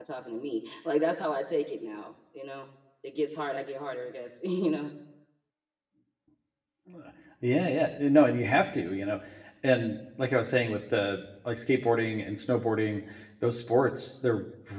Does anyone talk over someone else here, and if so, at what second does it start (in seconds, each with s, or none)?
none